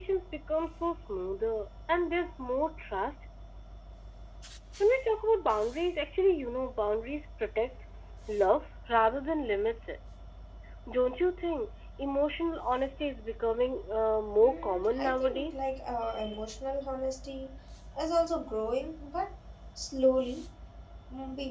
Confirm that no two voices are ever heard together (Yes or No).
No